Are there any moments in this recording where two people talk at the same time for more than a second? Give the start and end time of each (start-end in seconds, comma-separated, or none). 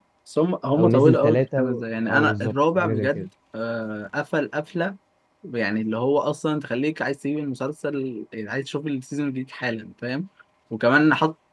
0.7-3.3